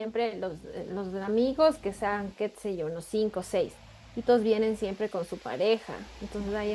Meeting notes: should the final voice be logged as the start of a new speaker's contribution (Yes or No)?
No